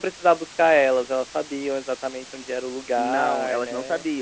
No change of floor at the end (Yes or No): No